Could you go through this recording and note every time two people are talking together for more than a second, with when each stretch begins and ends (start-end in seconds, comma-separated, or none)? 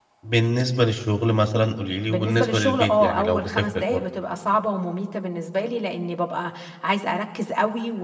2.1-4.0